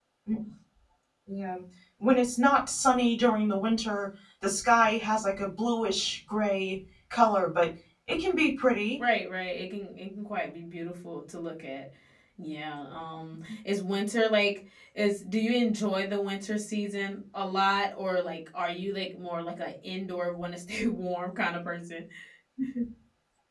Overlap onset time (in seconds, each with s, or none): none